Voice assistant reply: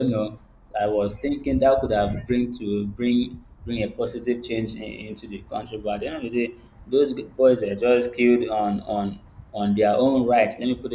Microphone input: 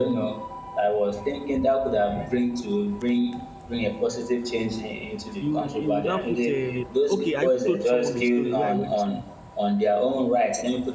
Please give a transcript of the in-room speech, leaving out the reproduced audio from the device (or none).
You you will now put a okay. I even told someone the story where I went to. Do